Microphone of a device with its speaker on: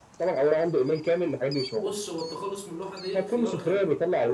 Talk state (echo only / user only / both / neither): both